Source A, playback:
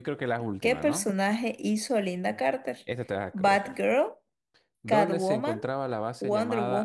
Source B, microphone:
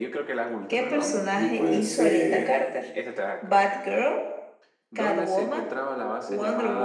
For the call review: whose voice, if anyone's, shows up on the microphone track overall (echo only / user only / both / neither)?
both